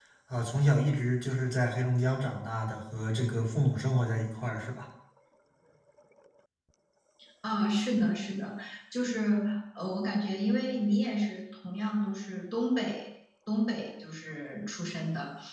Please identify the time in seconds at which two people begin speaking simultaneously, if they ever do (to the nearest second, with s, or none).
none